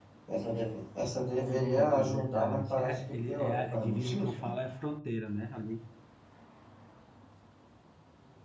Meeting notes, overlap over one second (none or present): present